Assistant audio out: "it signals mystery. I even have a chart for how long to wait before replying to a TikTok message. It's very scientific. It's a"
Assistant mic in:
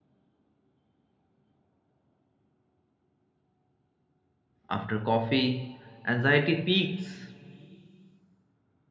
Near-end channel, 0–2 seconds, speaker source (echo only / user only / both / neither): neither